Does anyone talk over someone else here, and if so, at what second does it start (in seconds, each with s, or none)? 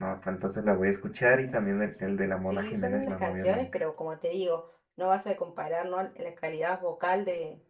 2.4 s